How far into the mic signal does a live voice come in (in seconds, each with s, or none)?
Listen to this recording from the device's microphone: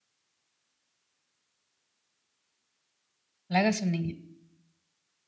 3.5 s